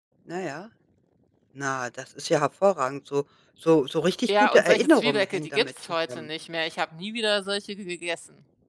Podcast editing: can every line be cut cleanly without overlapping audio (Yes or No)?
No